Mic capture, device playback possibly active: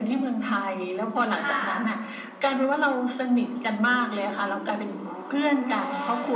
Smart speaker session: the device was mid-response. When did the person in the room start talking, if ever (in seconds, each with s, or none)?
1.3 s